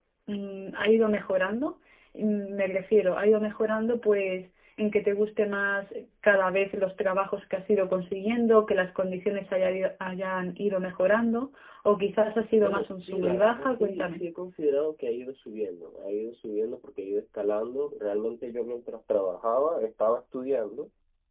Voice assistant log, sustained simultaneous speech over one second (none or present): present